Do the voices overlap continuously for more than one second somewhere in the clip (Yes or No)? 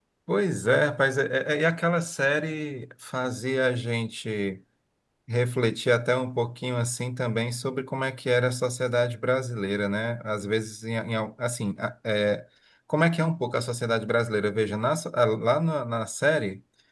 No